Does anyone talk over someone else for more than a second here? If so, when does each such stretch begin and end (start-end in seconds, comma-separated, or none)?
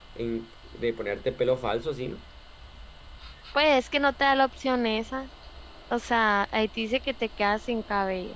none